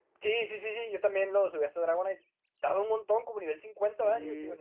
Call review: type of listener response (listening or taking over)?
taking over